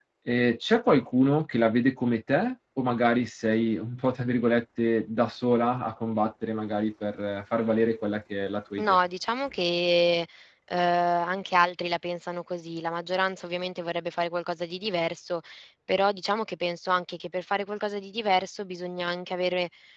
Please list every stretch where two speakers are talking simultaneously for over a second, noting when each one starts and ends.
none

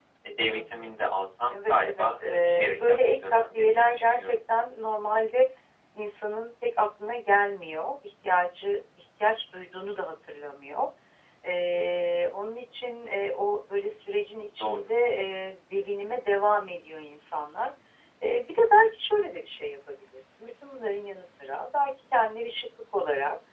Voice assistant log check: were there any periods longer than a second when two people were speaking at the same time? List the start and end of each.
1.5-4.4

